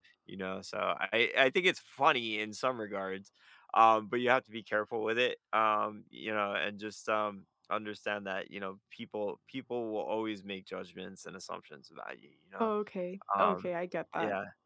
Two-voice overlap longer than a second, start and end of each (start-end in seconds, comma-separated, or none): none